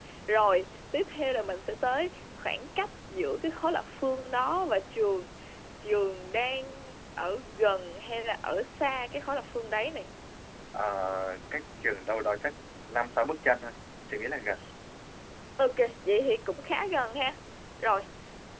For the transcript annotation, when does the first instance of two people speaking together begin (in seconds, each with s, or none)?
none